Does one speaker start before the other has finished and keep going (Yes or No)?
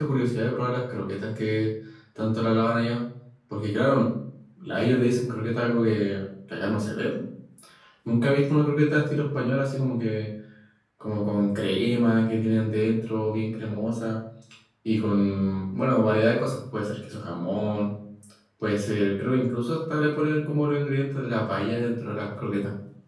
No